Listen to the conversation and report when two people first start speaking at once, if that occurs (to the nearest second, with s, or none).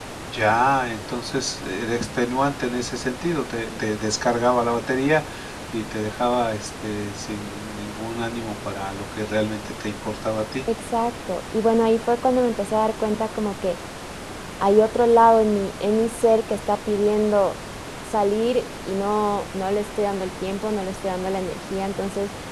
none